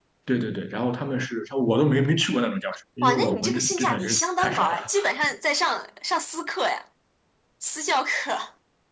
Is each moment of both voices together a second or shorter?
No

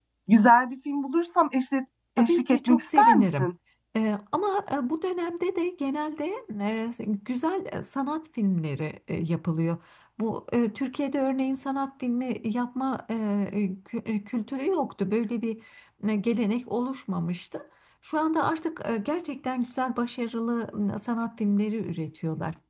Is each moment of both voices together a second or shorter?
No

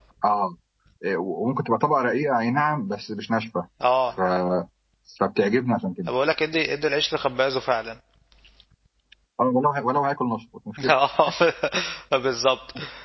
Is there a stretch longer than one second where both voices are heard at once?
No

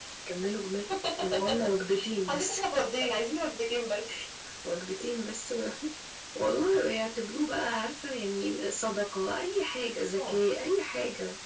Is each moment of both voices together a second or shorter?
Yes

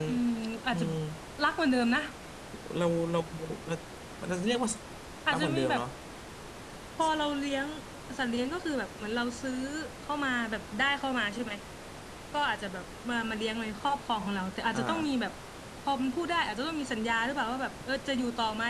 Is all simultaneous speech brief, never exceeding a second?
Yes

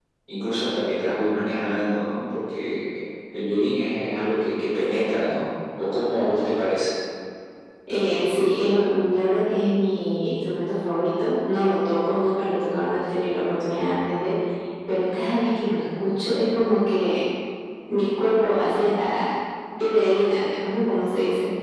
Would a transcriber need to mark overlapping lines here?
No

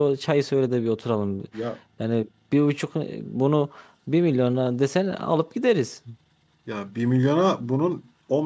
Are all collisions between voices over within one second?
Yes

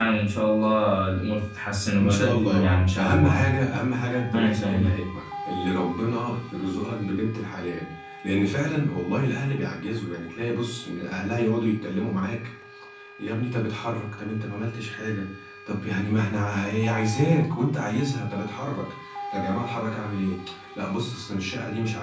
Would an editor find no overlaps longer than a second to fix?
No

